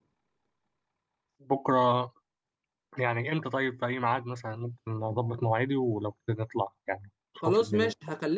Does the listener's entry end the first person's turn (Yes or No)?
Yes